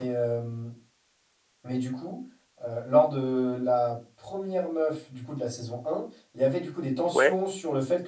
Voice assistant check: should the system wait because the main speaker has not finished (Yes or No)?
Yes